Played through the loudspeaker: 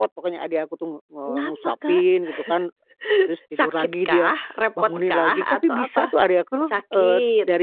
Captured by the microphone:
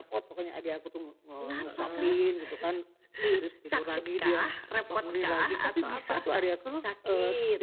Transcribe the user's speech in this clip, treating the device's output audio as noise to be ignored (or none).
Heeh.